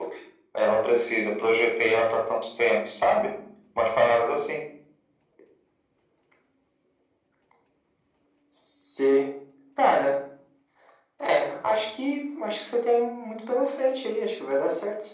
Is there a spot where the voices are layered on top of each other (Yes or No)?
No